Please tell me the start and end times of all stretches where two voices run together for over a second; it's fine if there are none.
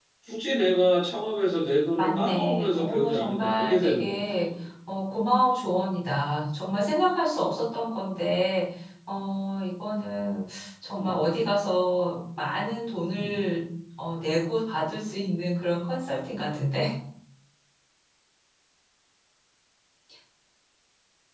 2.0-4.5

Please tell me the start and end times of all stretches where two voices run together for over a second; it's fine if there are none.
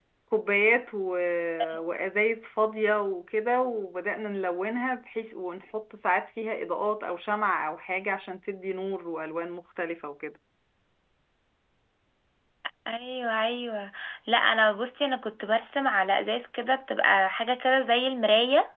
none

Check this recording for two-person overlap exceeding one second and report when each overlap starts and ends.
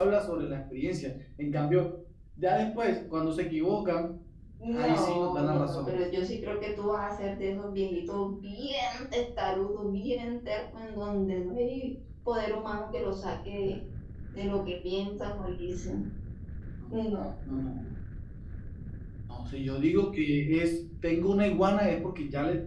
4.7-6.0

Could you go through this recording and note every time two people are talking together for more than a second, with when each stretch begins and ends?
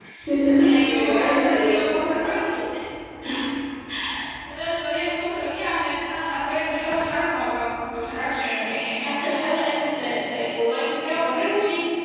0.6-2.1

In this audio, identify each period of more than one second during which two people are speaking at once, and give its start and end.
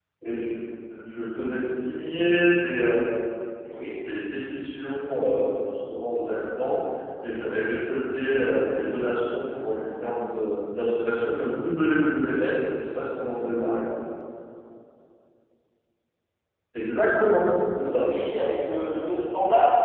none

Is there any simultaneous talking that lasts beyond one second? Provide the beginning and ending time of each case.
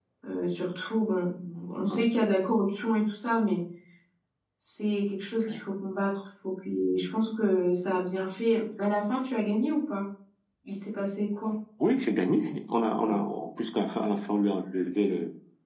none

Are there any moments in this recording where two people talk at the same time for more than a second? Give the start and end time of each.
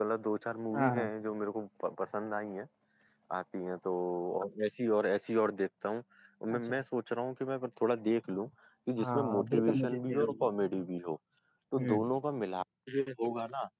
9.0-10.5

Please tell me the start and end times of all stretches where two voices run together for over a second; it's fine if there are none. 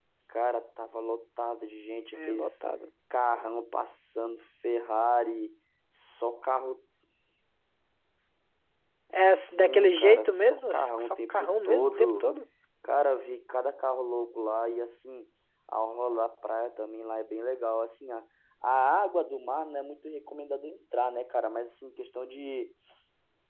9.1-12.3

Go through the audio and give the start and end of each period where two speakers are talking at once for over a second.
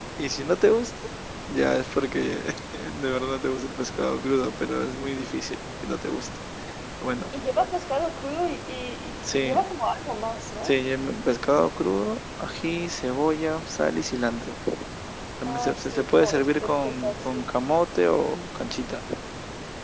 15.4-17.5

